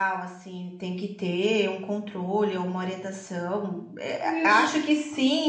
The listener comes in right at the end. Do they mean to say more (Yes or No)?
No